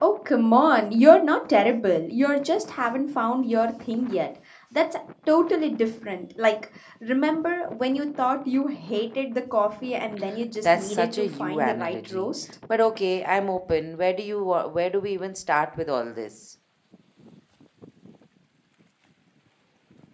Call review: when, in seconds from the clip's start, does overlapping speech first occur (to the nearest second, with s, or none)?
11 s